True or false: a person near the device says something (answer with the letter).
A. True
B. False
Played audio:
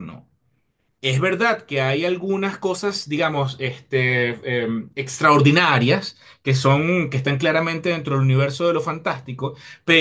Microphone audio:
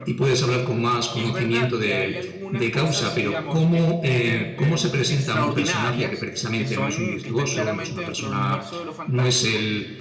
A